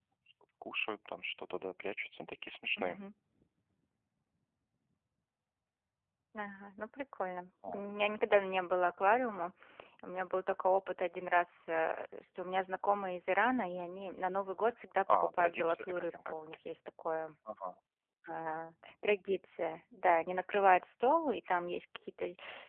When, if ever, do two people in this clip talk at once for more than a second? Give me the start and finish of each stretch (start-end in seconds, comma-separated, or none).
15.1-16.3